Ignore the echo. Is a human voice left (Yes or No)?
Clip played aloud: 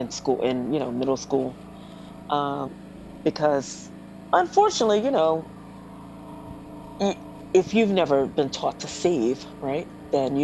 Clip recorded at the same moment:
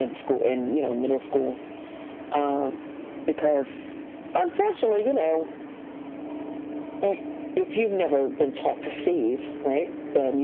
No